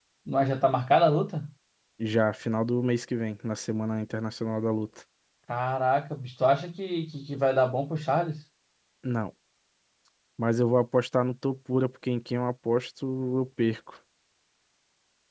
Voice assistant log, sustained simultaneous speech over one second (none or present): none